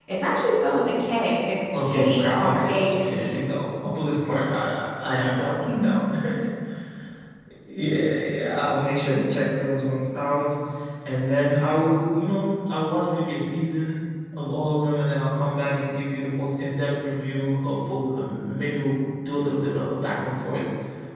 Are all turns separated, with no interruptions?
No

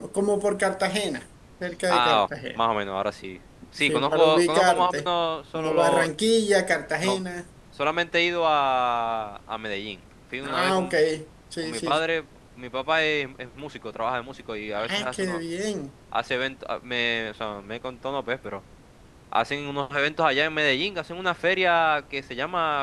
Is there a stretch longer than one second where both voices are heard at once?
Yes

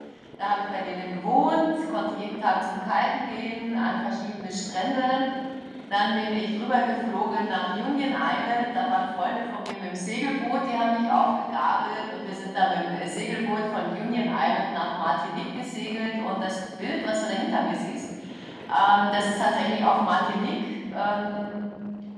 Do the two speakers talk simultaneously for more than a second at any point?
No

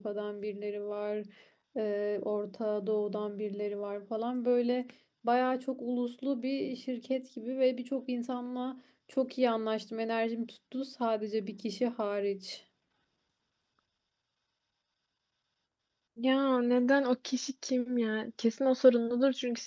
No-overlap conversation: Yes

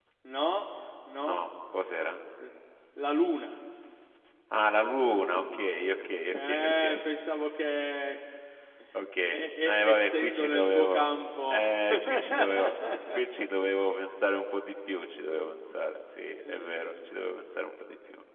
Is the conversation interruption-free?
No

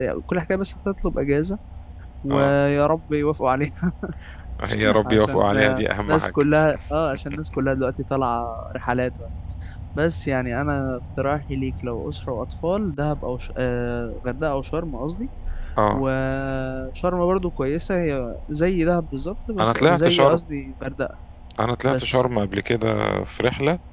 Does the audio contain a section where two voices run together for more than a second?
Yes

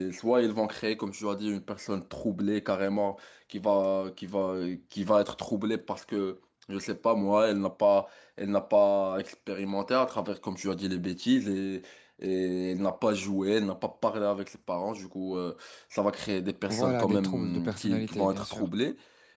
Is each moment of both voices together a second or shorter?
No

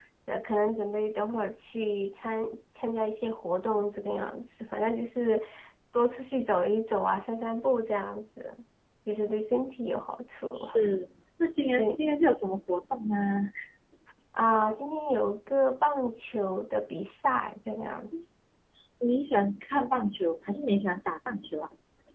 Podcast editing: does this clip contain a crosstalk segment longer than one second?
No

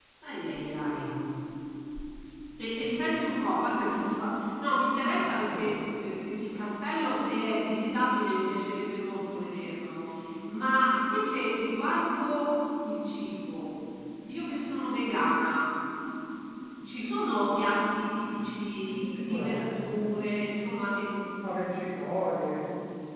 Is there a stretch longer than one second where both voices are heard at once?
Yes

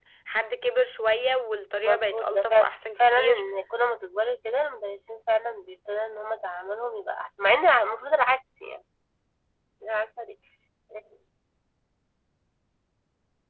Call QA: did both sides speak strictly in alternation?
No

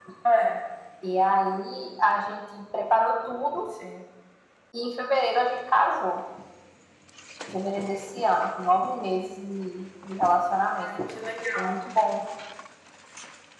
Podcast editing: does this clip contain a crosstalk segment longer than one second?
No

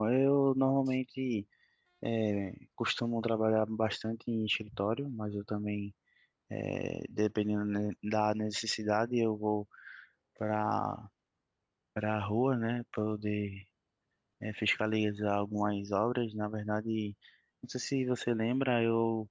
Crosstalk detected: No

